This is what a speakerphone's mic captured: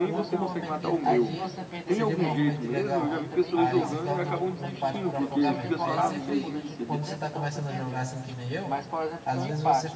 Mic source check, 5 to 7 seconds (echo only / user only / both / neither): both